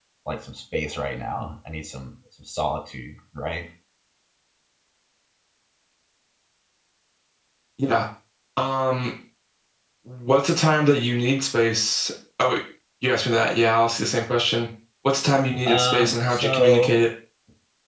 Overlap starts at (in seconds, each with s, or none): 15.7 s